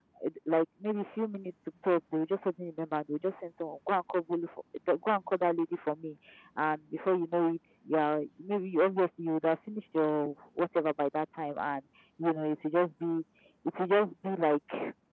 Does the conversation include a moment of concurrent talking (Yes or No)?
No